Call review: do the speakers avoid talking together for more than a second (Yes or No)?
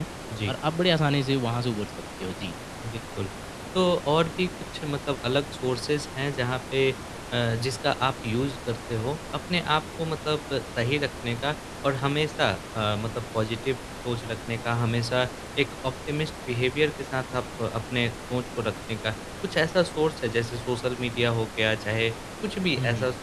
Yes